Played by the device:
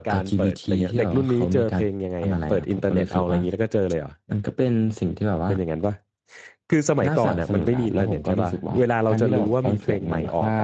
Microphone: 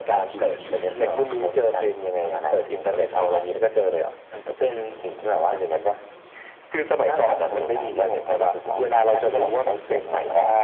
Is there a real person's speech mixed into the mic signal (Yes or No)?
Yes